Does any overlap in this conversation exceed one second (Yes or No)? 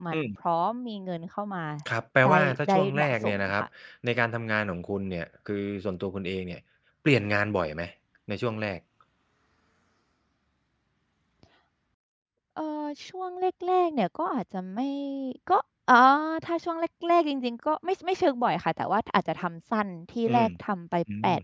Yes